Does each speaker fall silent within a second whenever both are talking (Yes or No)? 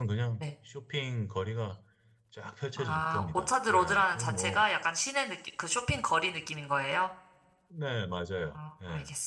No